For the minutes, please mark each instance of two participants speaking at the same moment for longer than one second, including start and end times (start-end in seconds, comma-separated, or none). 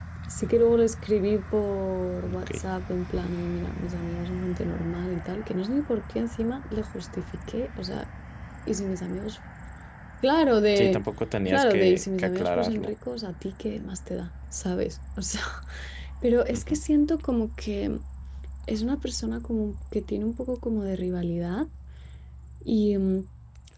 11.5-12.9